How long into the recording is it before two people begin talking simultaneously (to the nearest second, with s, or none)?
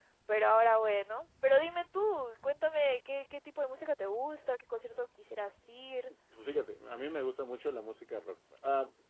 none